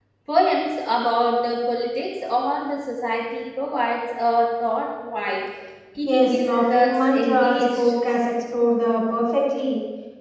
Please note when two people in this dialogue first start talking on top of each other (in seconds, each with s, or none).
6.1 s